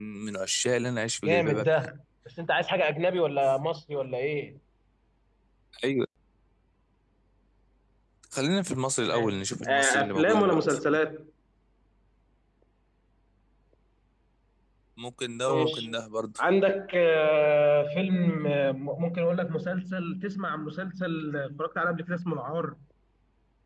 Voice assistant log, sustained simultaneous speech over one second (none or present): present